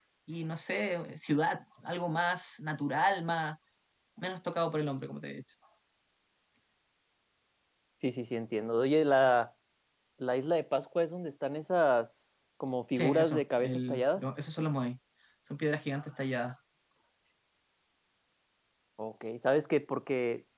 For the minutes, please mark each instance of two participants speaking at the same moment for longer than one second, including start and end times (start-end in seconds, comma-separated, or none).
13.0-14.2